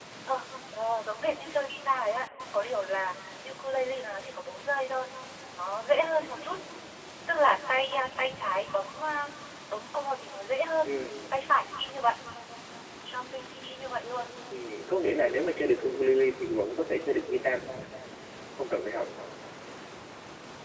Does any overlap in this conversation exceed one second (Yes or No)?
No